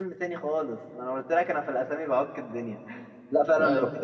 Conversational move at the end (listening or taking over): listening